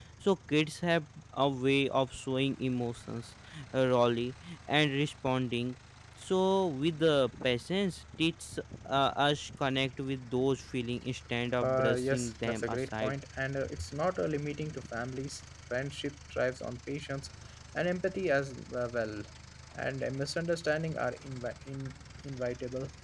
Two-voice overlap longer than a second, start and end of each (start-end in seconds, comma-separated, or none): 11.6-13.1